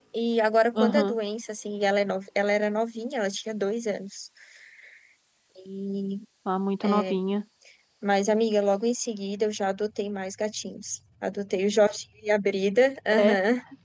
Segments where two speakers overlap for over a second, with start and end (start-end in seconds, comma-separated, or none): none